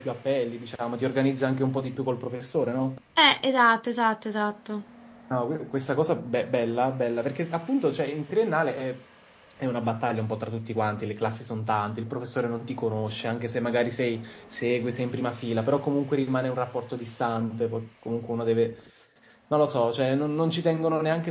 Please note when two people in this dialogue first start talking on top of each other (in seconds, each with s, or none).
none